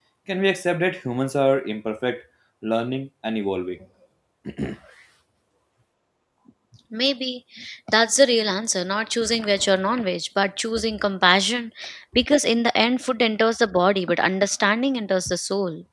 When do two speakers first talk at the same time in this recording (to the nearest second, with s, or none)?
none